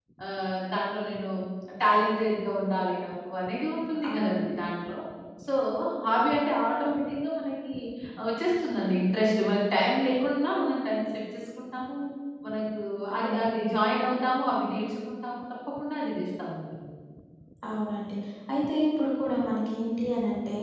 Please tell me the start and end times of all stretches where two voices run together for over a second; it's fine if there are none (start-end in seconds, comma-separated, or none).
none